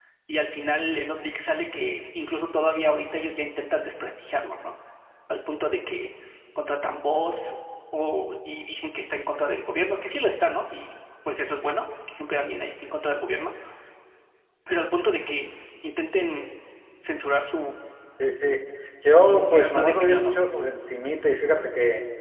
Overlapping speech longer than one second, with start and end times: 19.0-20.4

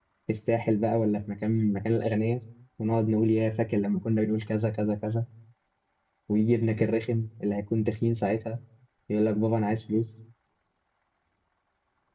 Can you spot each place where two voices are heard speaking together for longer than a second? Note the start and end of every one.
none

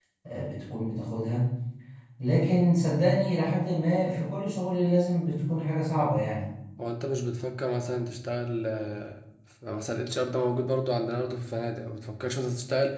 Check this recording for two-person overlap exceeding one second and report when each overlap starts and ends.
none

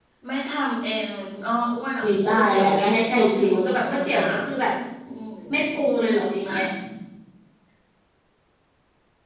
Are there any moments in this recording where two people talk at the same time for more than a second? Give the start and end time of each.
2.0-4.3

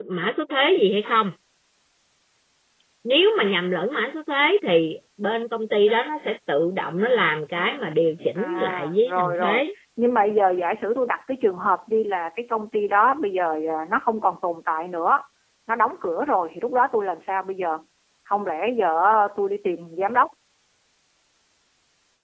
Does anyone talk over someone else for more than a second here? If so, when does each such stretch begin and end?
8.4-9.6

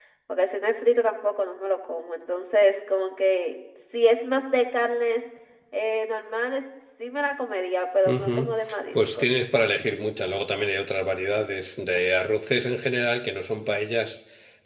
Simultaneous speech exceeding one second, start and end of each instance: none

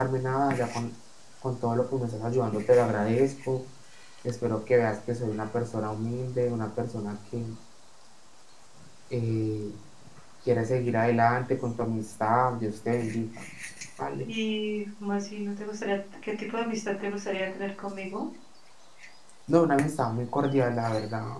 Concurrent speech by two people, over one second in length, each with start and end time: none

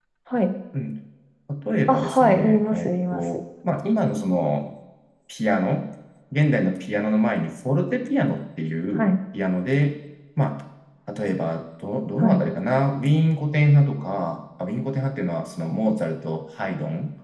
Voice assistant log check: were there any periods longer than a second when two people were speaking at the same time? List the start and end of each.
1.9-3.2

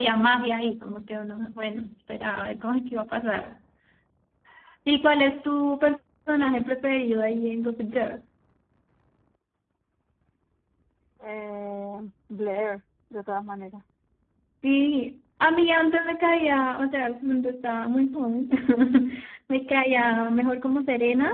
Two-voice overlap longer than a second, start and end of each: none

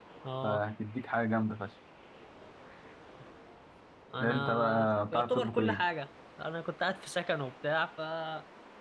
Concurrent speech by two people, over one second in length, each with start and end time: 4.2-5.8

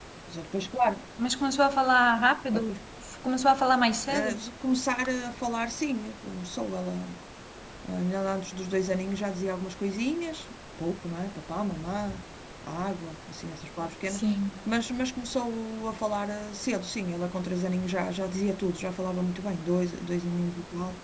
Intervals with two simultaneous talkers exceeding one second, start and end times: none

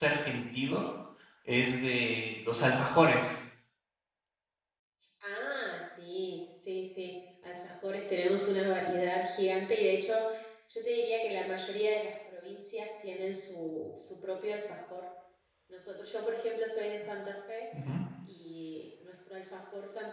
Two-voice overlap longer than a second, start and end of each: none

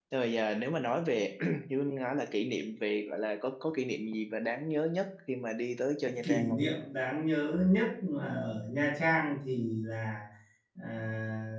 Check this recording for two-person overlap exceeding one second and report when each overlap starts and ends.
none

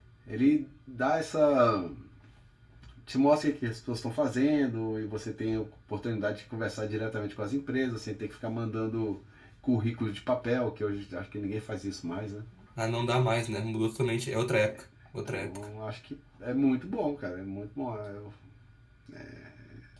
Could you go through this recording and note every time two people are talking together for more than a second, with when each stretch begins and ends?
none

